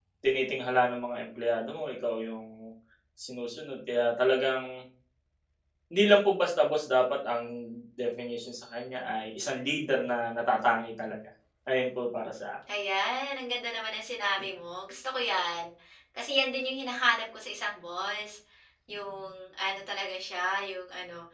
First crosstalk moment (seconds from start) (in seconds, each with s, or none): none